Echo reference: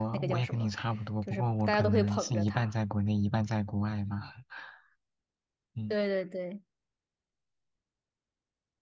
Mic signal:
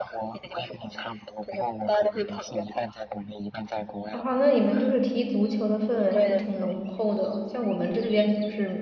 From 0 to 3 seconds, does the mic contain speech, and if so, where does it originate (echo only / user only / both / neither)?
echo only